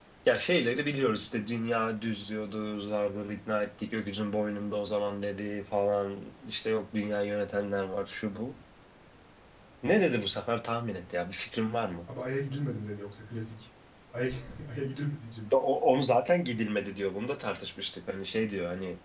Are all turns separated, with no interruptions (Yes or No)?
Yes